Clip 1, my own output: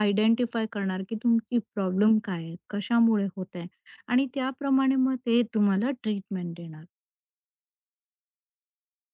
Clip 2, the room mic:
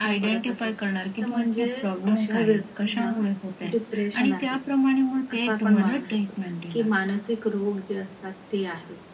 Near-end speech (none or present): present